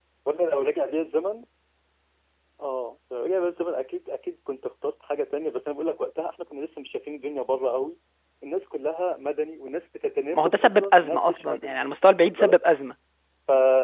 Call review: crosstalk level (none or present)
present